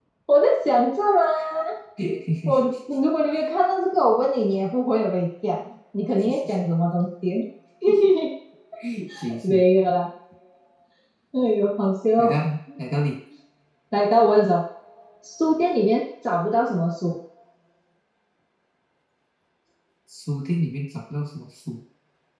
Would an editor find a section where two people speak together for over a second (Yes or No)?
No